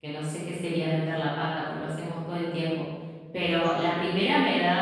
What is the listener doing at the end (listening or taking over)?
listening